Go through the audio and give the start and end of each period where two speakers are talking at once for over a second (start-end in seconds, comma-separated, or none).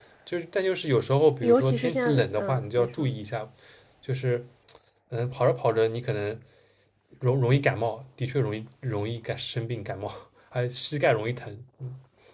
1.4-3.1